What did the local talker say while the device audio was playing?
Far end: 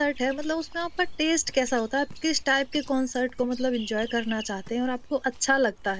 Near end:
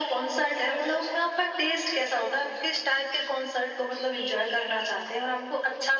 none

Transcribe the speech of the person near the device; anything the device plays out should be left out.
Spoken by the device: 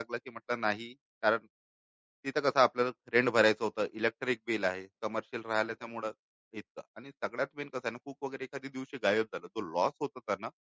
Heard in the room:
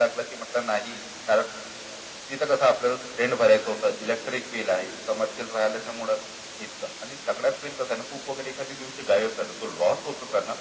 none

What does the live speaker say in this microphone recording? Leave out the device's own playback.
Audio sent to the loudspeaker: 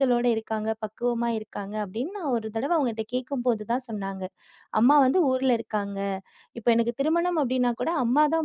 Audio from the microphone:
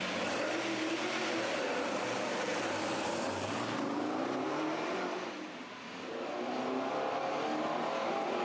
none

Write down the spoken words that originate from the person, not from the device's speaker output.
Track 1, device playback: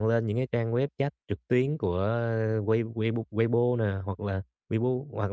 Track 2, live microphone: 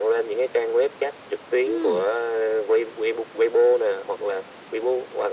Ừm,

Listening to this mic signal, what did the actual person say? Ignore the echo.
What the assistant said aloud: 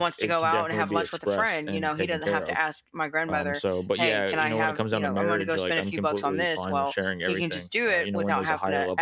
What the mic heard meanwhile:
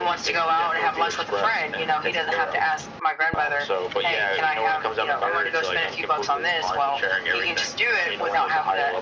none

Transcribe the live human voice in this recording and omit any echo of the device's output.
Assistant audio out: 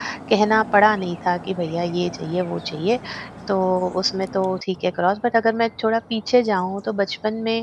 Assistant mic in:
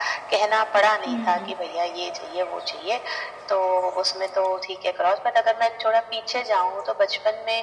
हुँ, हुँ।

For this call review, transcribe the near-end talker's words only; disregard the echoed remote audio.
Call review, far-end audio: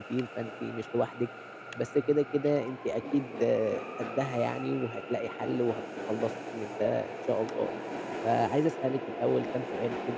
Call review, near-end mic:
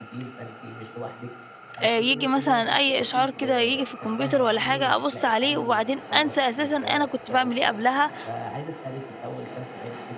آآ ييجي مثلًا أي إشعار كده ييجي في الكمبيوتر والّا حاجة، أبُص عليه وبعدين أنسى أساسًا أنا كنت باعمل إيه قبلها،

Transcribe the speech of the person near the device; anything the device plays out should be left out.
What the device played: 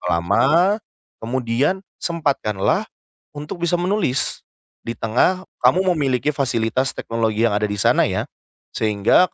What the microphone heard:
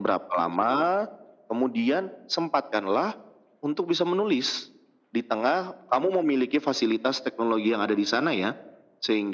none

